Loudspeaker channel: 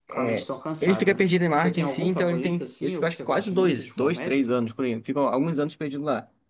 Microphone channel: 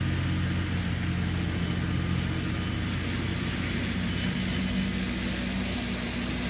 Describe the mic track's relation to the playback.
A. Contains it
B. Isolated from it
B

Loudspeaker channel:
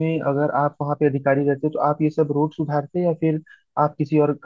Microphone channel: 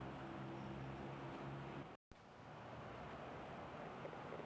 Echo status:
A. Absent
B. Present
A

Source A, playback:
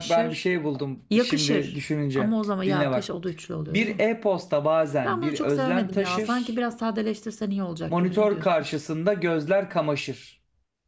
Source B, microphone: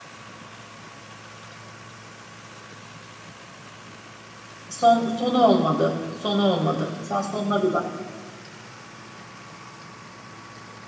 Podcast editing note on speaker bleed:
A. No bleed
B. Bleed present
A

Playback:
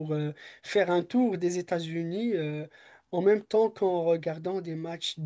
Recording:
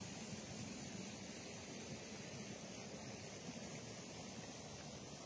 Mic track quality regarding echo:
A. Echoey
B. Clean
B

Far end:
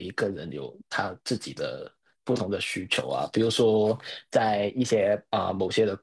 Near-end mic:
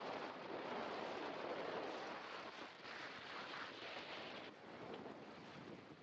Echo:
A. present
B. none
B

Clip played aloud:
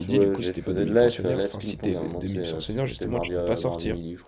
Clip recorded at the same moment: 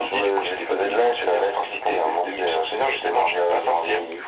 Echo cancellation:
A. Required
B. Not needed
A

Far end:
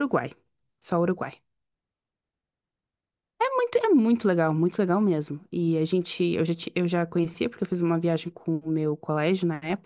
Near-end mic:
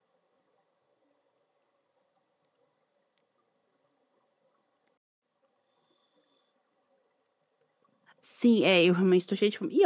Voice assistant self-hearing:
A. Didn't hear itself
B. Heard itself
A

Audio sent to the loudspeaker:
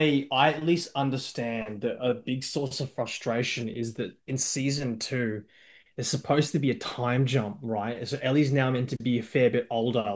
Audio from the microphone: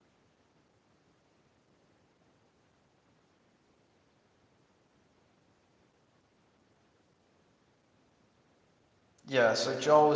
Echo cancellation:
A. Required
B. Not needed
B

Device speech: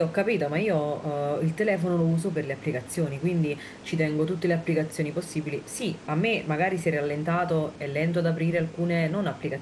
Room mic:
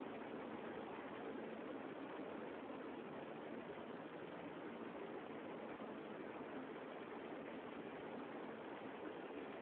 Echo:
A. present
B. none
B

